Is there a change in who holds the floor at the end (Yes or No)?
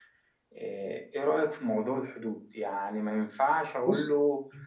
No